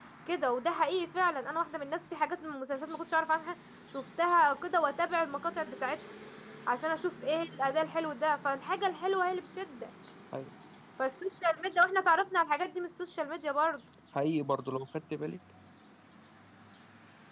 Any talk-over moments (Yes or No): No